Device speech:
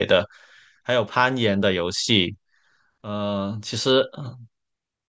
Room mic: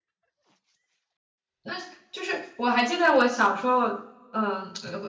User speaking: Yes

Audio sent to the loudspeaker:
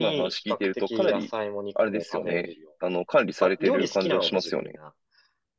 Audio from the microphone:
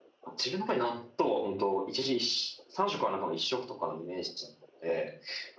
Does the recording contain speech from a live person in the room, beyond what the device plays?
Yes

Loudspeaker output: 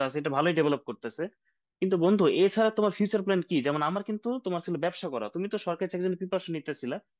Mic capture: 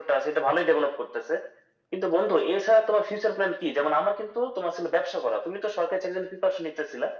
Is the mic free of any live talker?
Yes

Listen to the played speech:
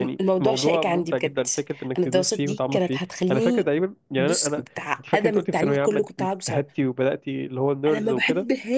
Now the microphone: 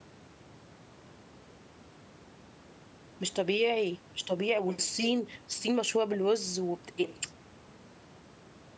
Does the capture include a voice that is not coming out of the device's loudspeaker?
Yes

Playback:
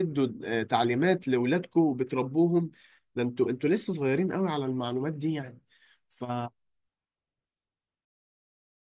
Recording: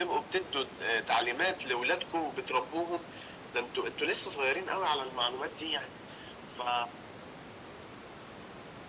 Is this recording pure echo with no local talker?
Yes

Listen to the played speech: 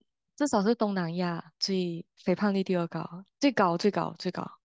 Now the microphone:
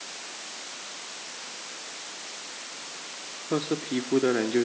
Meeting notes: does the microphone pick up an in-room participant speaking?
Yes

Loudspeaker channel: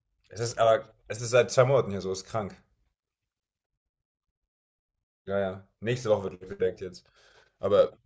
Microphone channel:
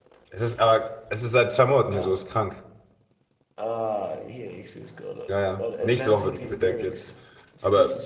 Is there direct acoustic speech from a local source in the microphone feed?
Yes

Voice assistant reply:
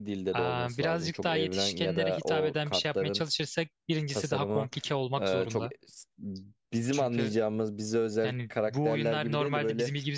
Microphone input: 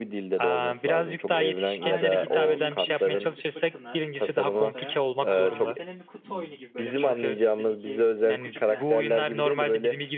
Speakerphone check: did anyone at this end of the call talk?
Yes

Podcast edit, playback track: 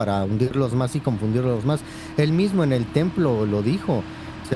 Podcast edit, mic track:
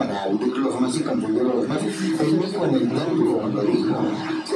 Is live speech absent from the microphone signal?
No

